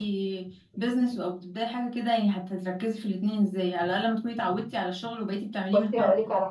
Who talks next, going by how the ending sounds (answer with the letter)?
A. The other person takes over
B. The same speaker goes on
A